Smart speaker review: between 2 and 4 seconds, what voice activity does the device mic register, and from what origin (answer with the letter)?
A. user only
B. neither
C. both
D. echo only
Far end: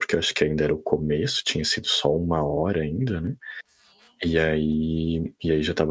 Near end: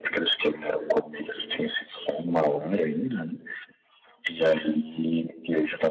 D